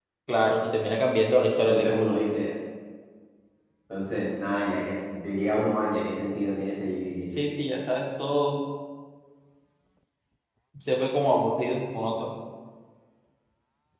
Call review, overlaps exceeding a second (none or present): none